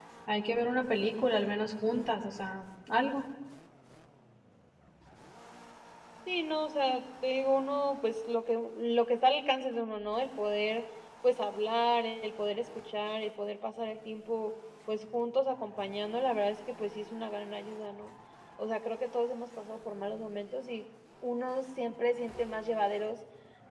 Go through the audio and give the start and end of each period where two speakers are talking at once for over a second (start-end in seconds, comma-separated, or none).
none